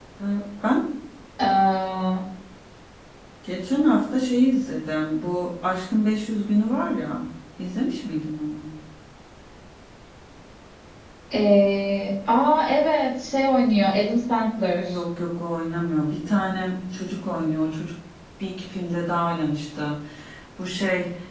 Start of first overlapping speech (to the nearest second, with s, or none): none